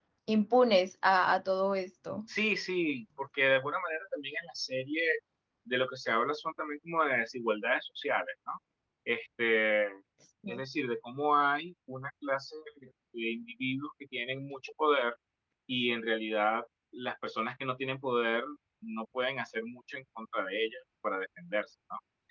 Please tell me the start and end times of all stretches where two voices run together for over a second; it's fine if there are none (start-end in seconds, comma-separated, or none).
none